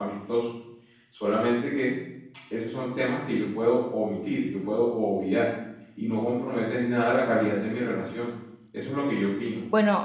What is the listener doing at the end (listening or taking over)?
taking over